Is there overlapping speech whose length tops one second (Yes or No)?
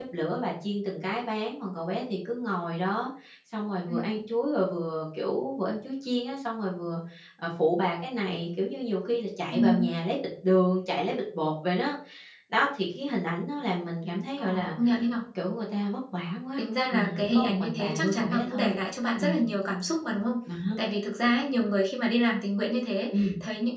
Yes